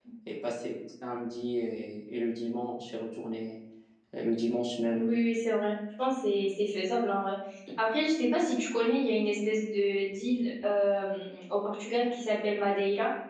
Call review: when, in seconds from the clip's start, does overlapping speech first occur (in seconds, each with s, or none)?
none